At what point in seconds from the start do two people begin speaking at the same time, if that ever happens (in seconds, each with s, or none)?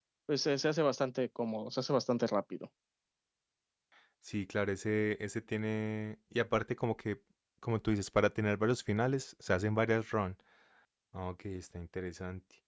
none